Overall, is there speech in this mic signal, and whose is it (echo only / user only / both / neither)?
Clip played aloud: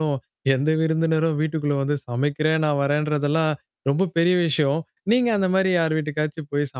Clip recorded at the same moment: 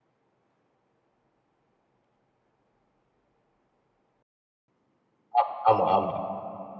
user only